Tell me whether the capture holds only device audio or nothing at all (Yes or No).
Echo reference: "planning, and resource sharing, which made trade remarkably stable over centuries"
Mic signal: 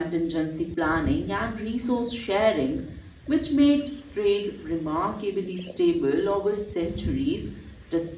Yes